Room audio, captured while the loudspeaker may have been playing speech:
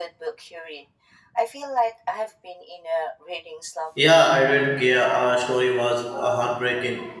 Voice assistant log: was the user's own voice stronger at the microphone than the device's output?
Yes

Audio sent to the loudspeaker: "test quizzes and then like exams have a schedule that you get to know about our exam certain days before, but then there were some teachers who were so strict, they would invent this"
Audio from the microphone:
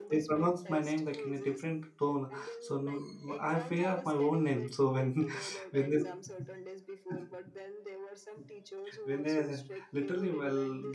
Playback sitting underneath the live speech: Yes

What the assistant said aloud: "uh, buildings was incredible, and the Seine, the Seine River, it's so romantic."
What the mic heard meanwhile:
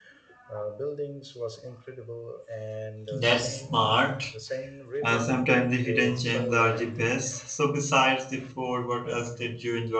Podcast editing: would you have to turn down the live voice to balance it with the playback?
Yes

